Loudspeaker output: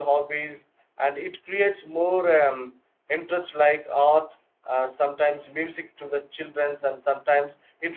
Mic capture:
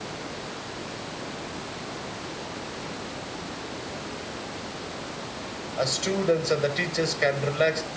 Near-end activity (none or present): present